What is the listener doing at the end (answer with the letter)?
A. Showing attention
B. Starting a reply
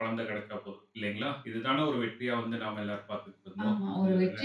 B